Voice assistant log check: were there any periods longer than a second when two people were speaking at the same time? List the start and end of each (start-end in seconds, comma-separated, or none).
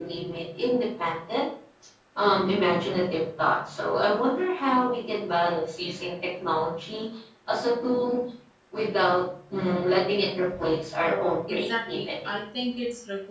11.0-12.4